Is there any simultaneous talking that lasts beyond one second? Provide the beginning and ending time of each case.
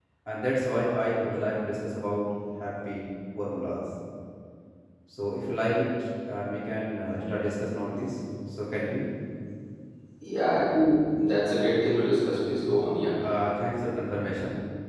none

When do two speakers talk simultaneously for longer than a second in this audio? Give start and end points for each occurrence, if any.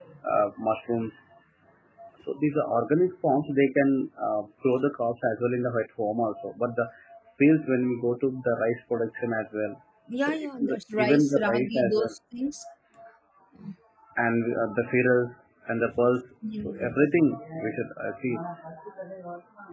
10.2-12.1

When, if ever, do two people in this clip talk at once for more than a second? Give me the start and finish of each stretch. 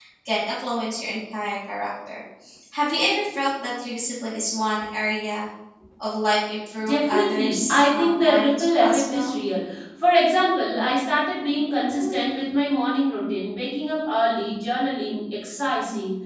6.8-9.4

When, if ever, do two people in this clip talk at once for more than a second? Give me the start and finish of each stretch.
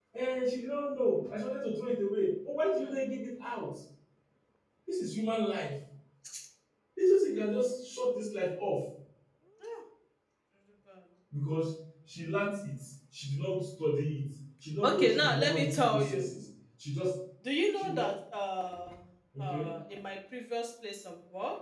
14.8-16.2

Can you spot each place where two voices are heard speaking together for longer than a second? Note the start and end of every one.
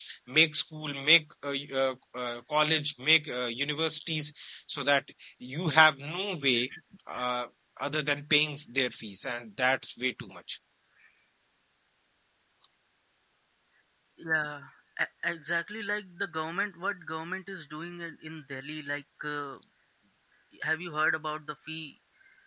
none

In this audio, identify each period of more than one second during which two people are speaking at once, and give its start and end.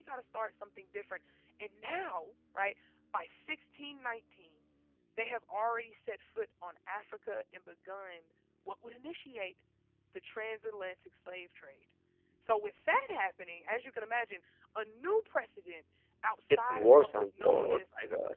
16.5-17.9

